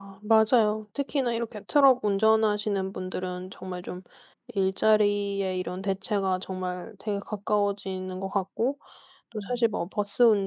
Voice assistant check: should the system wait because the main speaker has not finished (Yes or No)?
Yes